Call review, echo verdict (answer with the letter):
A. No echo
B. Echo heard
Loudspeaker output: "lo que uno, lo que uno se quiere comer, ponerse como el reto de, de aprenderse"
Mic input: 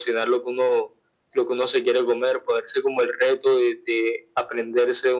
B